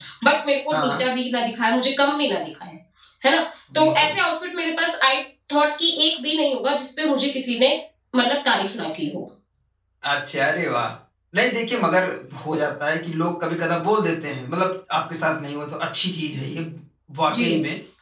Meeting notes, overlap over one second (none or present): none